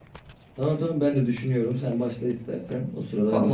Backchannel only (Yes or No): No